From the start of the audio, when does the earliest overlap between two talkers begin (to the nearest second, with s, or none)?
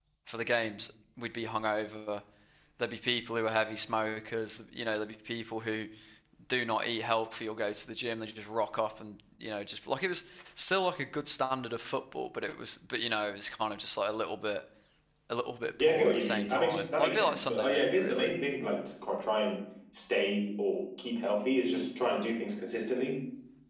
16 s